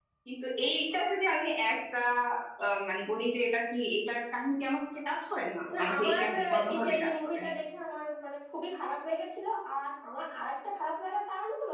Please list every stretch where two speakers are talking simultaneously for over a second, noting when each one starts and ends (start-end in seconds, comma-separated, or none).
5.8-7.5